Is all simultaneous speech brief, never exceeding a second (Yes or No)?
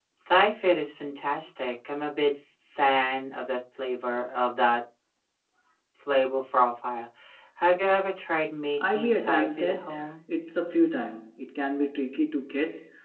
No